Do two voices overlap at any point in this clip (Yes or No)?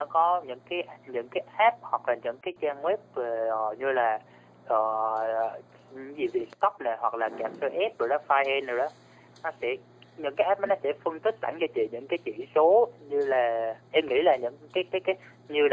No